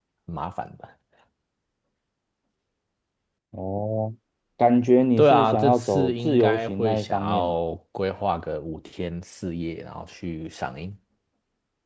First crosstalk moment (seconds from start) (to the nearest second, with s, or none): 5 s